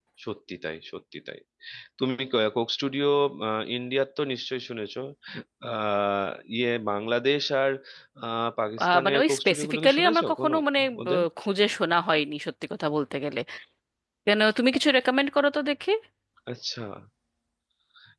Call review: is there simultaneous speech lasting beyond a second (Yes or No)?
Yes